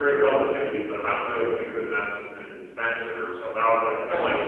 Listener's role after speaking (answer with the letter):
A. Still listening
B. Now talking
A